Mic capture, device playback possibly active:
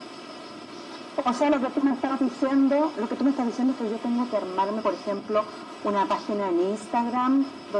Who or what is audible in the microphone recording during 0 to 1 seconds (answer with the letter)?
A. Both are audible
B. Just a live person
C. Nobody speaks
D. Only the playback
C